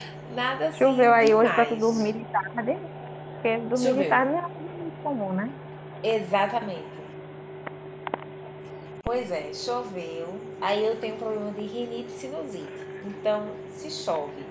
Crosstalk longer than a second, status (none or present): present